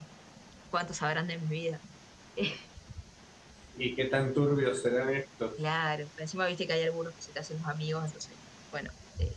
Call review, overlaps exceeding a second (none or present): none